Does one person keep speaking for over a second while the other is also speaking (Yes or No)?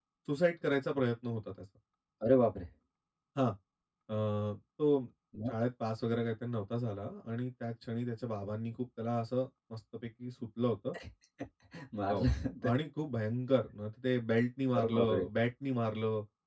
No